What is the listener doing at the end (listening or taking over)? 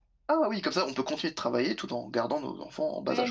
taking over